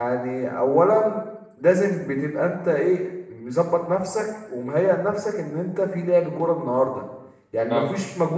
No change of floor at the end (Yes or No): Yes